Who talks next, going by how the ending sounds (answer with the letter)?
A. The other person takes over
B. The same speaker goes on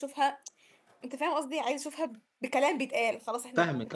A